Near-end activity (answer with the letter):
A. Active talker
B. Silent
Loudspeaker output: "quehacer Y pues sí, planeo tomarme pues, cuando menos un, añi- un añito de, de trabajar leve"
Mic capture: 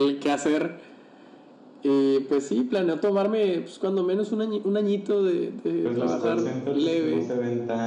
A